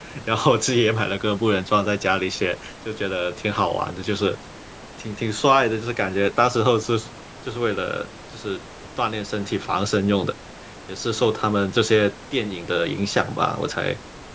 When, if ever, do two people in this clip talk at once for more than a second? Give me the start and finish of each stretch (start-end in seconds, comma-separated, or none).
none